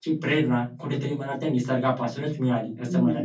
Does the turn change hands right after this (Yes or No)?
Yes